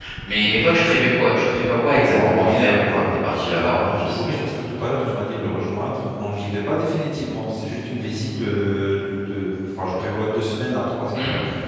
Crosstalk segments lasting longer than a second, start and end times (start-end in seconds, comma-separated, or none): 2.0-4.2